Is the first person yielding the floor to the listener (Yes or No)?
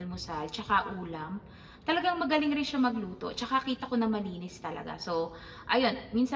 No